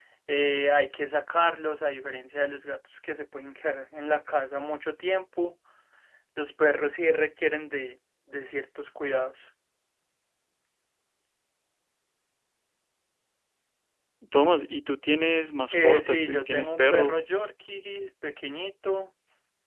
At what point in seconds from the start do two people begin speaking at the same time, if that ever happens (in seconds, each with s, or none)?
15.7 s